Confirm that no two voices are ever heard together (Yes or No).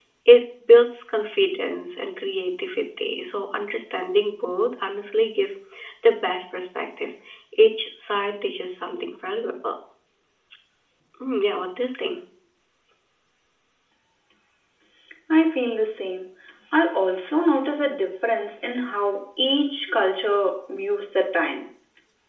Yes